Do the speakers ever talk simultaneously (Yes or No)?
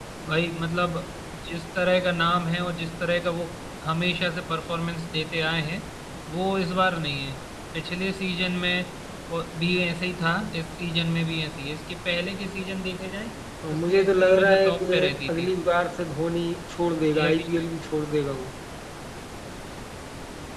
Yes